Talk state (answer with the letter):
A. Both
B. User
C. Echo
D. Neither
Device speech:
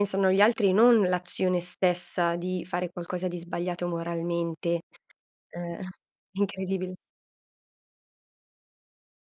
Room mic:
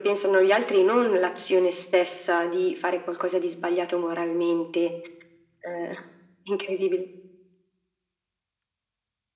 C